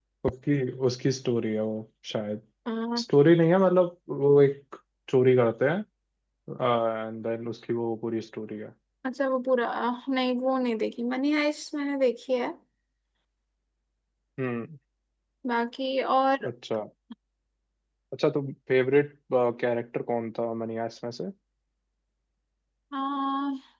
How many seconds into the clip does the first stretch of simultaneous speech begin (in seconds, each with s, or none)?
none